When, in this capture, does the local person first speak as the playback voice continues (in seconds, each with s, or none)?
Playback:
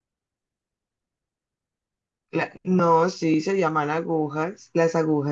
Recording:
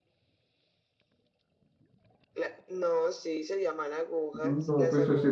4.4 s